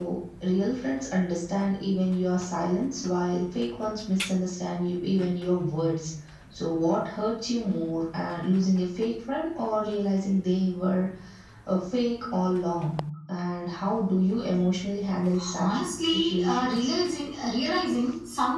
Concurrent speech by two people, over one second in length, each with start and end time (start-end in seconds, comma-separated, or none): 15.6-16.9